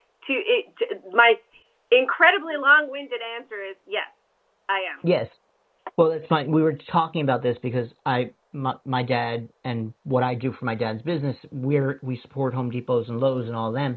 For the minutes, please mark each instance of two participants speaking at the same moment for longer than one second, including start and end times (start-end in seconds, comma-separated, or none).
none